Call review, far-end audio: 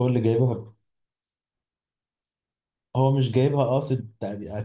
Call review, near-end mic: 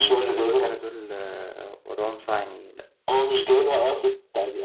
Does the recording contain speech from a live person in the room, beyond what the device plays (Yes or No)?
Yes